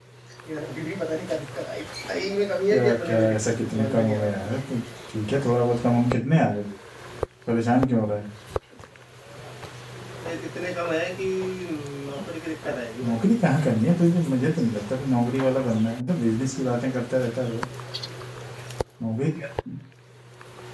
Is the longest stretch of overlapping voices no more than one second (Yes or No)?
No